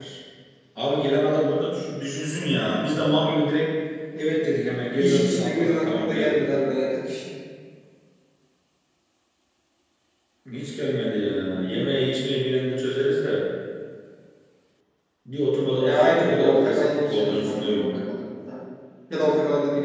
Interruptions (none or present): present